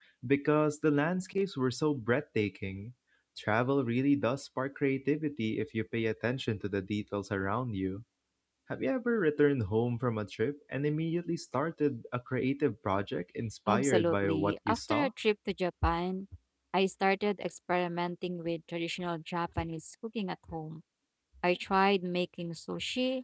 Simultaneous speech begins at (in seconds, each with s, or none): 13.7 s